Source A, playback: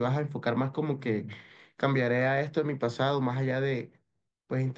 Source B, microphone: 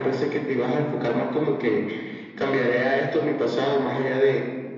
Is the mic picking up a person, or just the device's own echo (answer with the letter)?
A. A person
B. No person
A